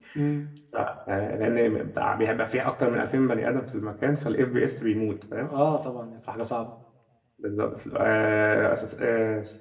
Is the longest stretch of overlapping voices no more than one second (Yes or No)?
Yes